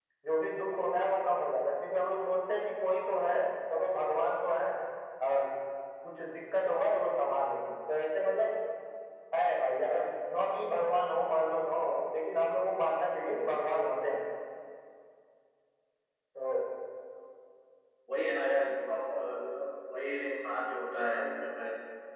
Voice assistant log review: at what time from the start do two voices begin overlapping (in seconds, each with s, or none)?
none